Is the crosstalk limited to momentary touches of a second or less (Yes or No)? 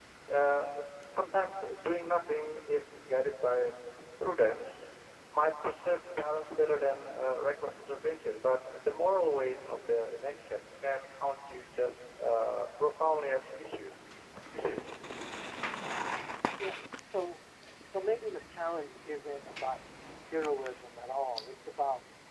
Yes